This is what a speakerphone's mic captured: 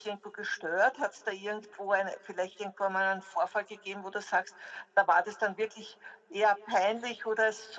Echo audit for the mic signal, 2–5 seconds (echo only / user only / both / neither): echo only